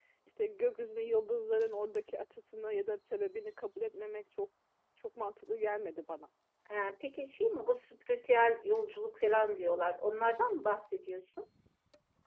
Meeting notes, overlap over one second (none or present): none